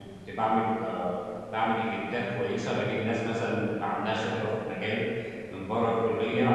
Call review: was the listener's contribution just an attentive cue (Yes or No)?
Yes